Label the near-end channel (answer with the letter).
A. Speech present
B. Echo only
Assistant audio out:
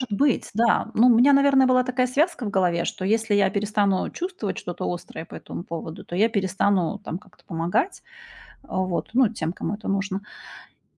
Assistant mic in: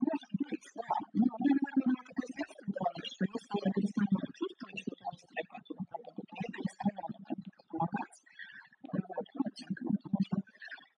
B